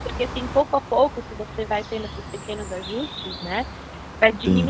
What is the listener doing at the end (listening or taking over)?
listening